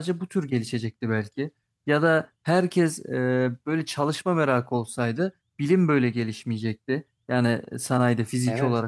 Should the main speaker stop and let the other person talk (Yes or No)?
No